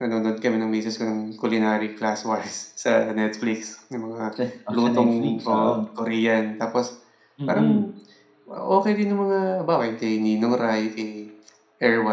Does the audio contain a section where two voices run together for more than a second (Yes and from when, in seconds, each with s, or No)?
Yes, from 4.4 s